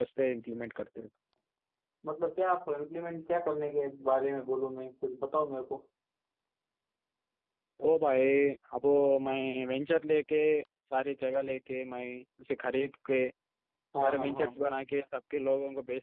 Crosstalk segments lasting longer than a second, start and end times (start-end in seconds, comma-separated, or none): none